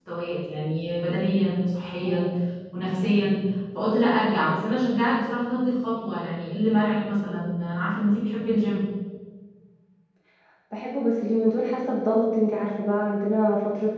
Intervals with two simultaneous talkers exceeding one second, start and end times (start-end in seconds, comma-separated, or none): none